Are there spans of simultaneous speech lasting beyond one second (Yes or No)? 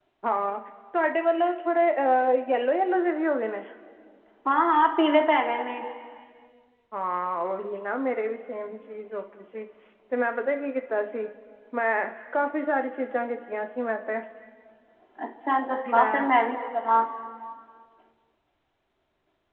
No